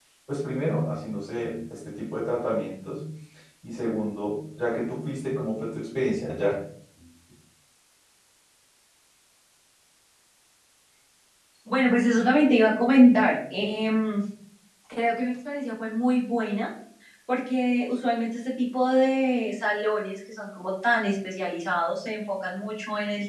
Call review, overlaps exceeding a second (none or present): none